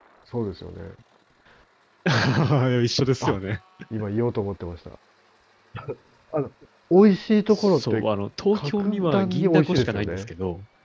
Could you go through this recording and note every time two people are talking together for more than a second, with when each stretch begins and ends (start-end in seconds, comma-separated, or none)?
8.5-10.3